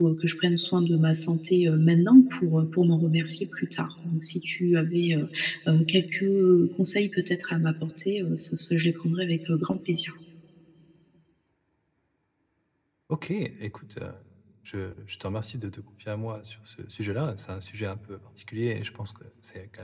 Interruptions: none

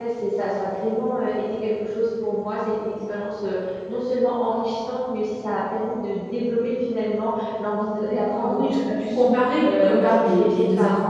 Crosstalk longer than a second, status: present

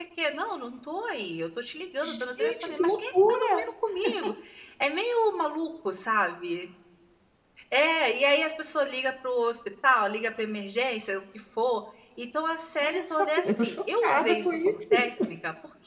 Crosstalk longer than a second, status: present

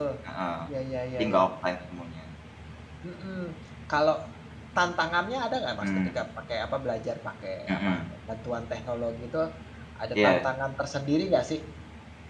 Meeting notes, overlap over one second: none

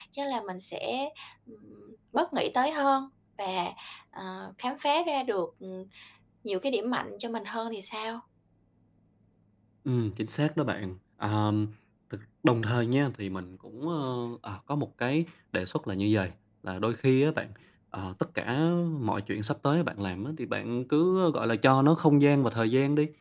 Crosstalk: none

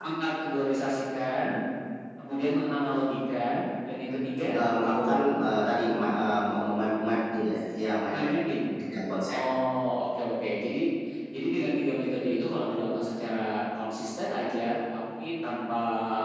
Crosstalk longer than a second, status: none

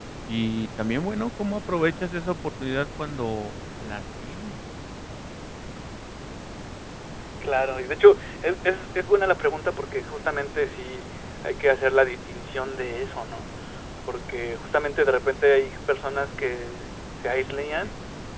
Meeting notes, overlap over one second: none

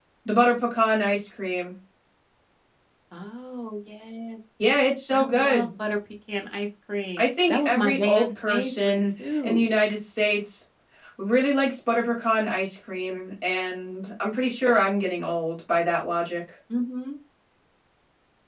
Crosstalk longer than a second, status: present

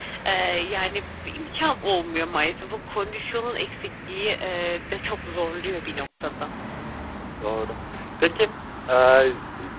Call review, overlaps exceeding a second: none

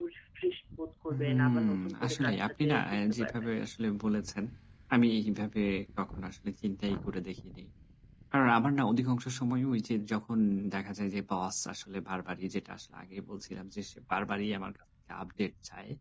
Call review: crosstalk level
present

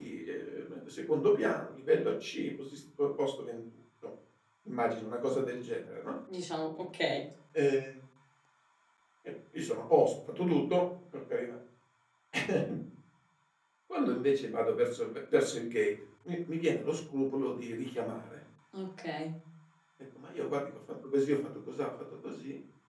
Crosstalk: none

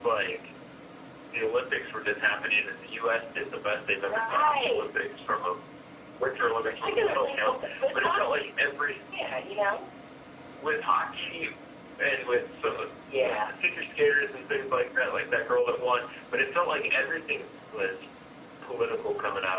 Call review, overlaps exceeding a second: present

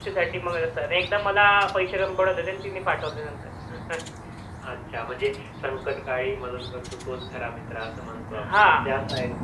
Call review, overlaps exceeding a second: none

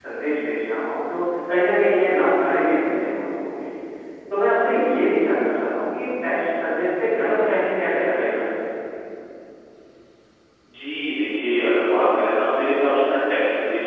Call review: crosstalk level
none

